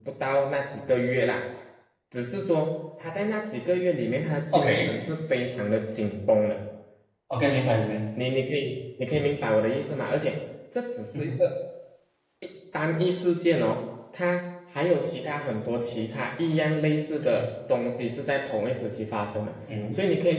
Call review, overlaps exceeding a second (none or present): none